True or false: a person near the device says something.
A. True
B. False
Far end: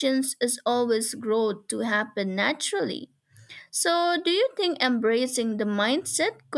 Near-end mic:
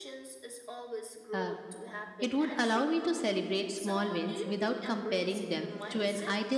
A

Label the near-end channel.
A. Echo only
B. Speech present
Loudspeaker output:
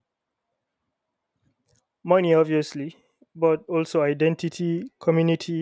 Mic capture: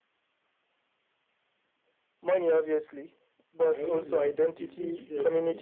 B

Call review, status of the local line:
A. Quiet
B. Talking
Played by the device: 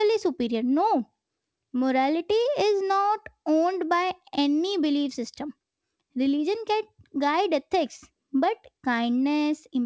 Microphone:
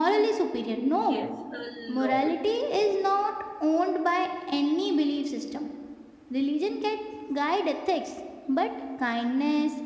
B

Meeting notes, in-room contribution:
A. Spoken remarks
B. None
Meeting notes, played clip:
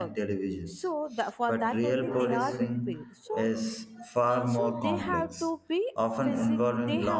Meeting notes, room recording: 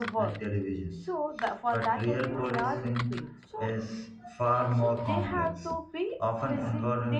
B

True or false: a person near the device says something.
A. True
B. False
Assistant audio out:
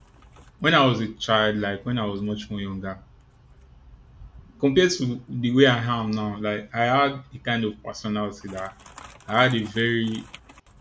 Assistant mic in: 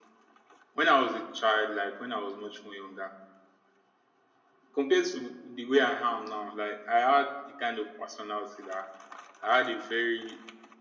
B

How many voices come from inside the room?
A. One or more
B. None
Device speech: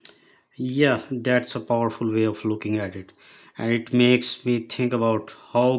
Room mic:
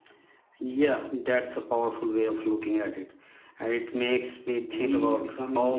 A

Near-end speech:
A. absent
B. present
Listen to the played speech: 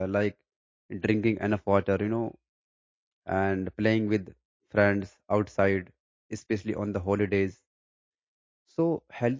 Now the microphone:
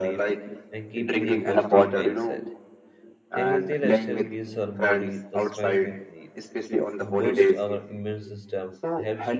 B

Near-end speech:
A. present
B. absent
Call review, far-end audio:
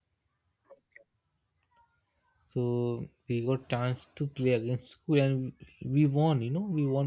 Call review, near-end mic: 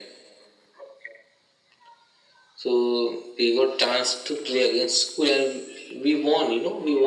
B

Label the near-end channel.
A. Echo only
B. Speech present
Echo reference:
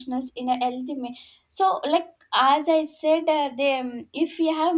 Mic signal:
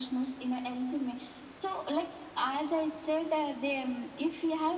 A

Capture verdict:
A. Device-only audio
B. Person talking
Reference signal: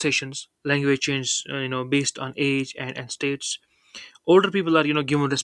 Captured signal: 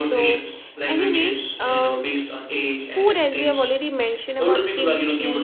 B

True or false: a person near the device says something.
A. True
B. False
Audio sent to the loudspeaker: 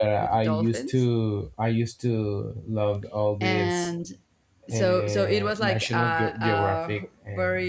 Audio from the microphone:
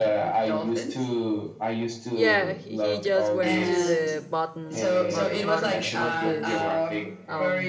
A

